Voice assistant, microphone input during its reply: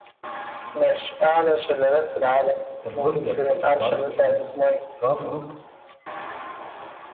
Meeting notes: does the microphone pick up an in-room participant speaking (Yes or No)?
Yes